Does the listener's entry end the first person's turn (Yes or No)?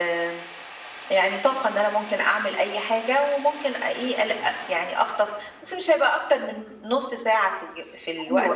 Yes